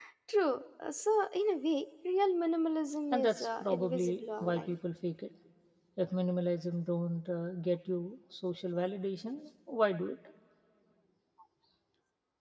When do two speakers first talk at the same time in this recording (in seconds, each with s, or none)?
3.1 s